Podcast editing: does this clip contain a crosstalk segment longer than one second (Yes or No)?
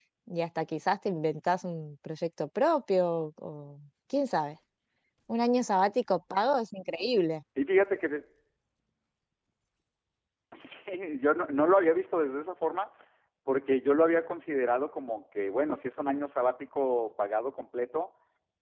No